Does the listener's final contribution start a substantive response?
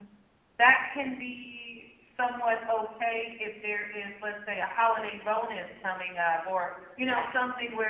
No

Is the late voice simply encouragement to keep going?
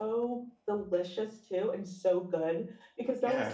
Yes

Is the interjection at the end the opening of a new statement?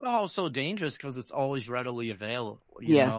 Yes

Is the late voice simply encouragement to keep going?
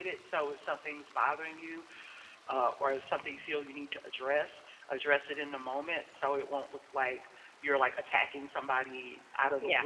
Yes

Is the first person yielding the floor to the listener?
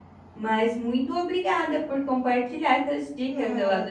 Yes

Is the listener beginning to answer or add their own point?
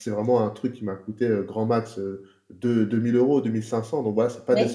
Yes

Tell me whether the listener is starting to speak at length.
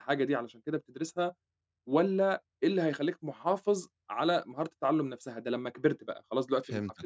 No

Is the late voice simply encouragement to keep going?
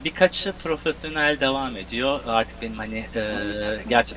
Yes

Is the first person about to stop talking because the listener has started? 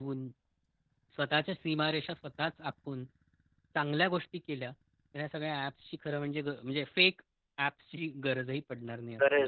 Yes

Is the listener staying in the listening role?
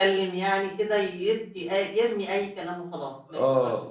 No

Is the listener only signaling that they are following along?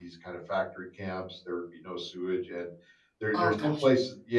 Yes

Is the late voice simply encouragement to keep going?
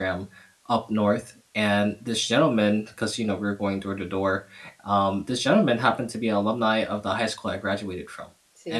Yes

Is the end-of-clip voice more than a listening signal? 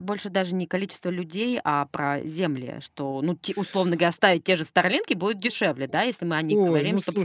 Yes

